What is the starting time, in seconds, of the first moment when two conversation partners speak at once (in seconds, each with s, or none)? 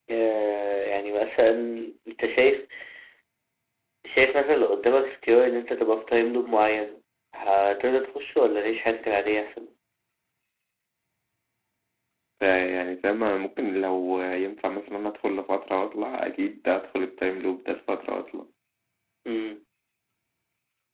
none